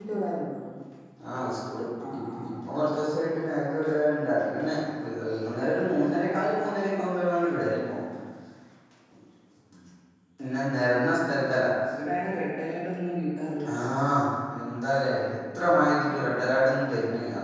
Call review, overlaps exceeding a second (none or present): none